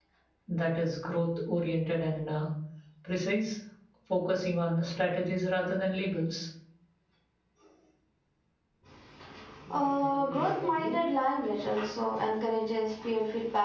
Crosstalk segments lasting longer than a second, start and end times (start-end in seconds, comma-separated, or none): none